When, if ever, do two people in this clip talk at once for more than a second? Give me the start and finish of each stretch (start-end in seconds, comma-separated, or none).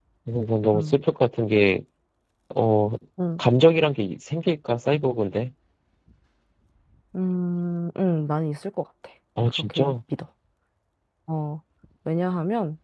none